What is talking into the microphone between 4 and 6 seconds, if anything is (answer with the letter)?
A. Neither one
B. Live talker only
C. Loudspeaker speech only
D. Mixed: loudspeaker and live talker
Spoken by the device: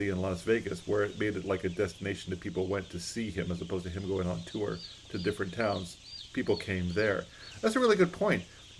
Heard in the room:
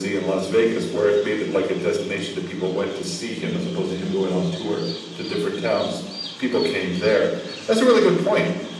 C